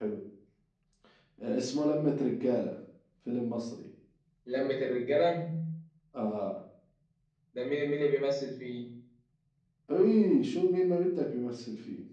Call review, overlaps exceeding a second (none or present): none